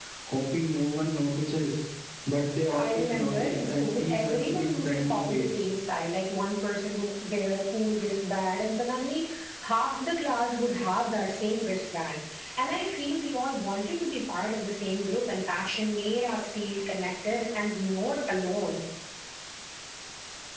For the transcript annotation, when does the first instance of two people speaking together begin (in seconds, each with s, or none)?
2.8 s